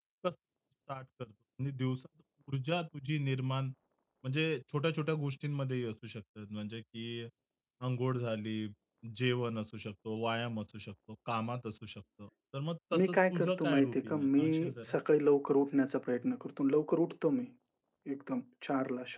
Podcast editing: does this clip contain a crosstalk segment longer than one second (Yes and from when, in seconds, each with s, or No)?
Yes, from 12.9 s